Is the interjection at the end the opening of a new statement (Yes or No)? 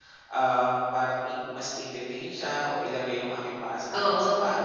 No